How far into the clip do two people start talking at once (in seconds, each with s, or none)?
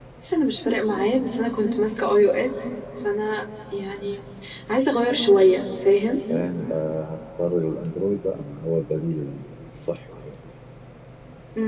none